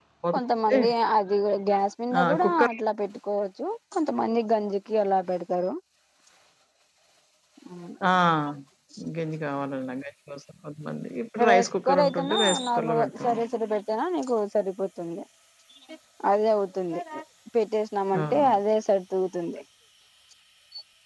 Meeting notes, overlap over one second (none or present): present